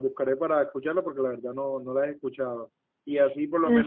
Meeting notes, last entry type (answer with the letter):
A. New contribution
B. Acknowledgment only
B